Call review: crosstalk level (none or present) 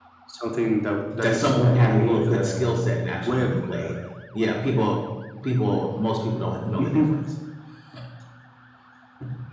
present